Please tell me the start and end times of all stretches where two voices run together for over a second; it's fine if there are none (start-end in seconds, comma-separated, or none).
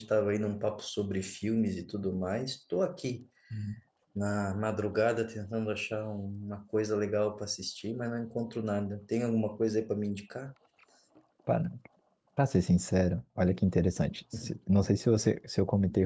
none